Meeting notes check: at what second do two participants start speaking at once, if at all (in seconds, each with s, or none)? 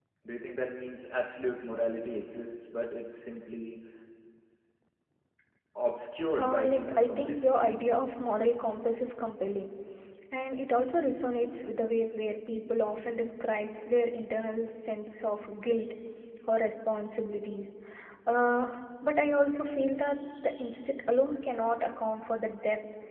6.4 s